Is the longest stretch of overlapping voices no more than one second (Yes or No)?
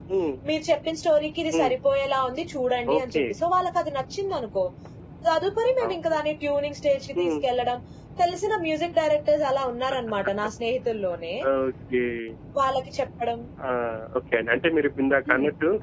Yes